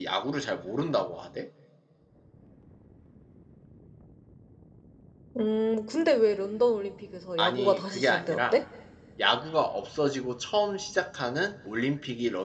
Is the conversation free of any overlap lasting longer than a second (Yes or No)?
No